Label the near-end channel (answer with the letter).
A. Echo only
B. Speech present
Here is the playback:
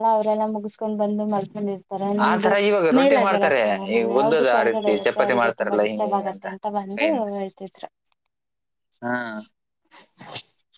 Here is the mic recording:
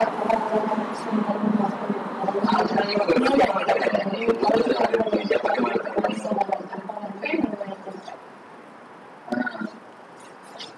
A